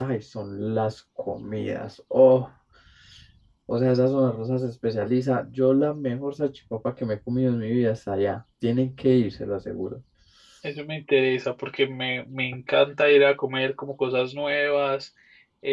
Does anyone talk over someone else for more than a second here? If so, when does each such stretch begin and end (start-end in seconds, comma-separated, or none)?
none